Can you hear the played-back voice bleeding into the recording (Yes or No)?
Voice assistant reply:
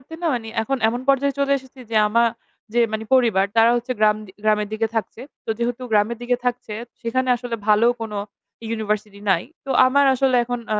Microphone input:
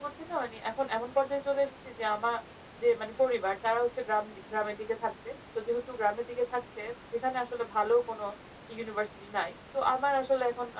Yes